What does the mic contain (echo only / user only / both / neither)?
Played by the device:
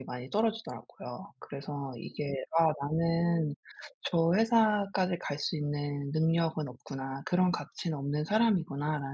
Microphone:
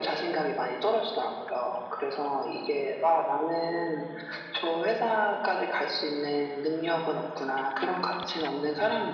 echo only